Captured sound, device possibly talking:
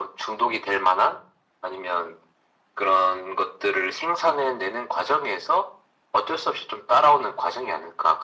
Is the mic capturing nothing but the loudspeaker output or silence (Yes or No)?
Yes